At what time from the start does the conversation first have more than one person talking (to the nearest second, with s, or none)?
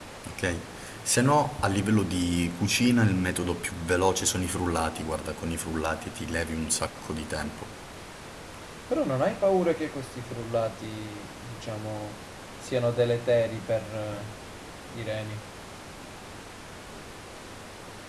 none